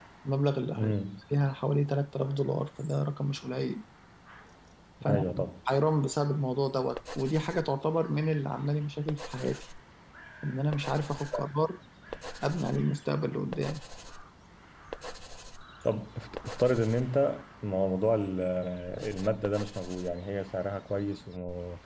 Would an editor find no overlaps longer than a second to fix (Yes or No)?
Yes